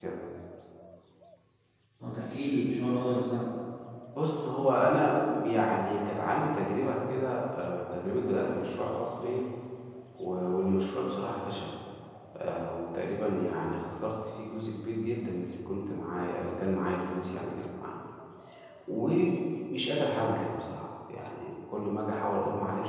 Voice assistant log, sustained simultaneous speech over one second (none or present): none